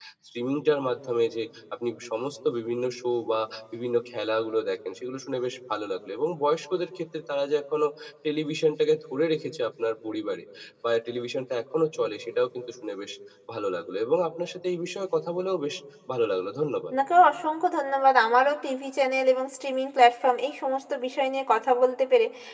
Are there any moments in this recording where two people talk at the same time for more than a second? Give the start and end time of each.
none

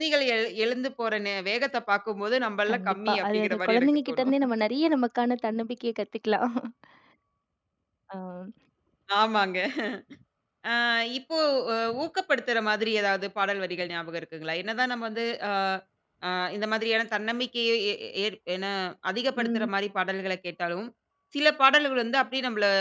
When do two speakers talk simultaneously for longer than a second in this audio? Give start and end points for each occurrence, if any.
2.7-4.3

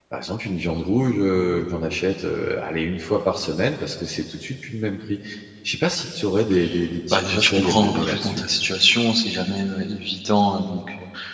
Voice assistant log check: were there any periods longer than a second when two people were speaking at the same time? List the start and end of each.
7.1-8.4

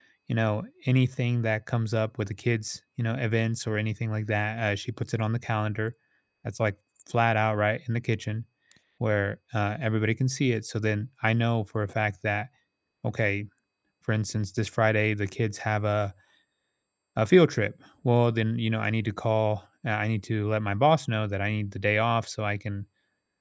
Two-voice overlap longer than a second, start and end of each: none

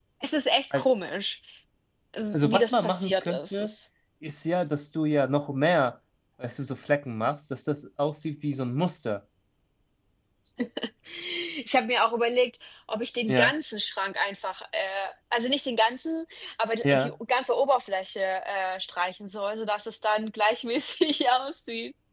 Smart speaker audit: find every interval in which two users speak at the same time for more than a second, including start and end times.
2.3-3.7

